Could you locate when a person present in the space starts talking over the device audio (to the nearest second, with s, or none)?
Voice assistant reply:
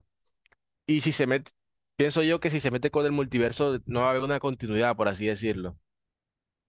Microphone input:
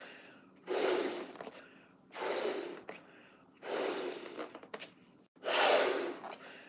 none